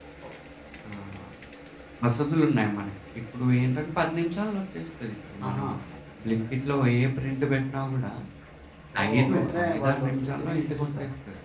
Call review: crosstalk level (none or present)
present